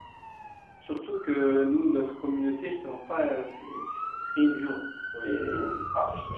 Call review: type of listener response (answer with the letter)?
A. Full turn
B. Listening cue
A